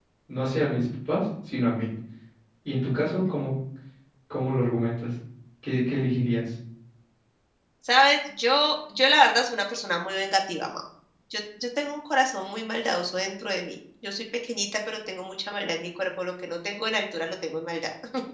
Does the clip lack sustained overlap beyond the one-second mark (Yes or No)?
Yes